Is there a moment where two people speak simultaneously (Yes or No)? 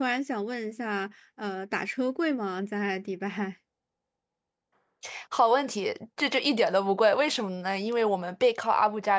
No